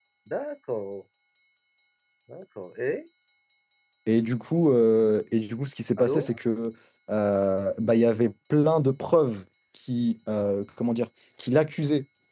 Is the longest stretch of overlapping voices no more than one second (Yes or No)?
Yes